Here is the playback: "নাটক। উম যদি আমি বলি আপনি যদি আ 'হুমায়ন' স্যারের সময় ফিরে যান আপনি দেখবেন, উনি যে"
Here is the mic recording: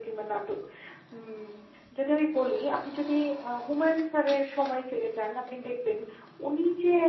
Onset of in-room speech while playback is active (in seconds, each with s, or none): none